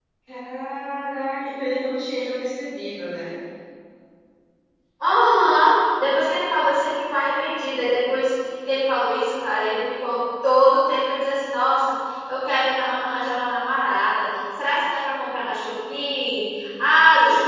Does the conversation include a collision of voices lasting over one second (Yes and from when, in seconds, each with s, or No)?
No